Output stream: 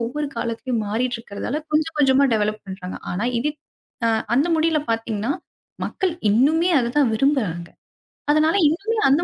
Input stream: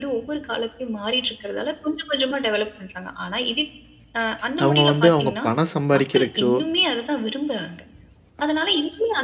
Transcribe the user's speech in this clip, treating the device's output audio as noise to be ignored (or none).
அவங்க வந்து அவங்க பணம் சம்பாரிக்கிறக்கோ,